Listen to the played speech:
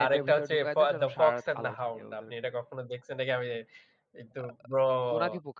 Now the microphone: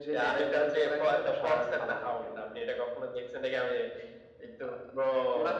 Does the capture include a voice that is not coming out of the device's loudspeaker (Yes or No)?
No